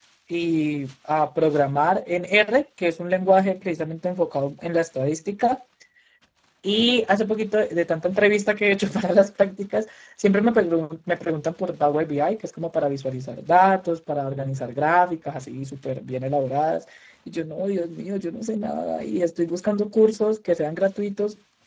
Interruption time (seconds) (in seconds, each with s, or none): none